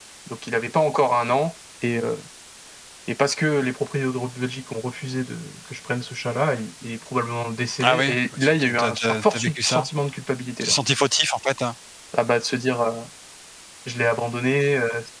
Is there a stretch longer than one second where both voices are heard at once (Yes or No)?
Yes